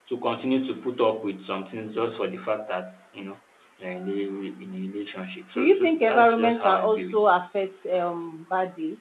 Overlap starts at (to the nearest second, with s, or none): 6 s